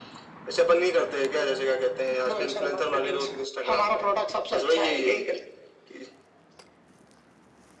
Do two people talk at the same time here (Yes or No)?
Yes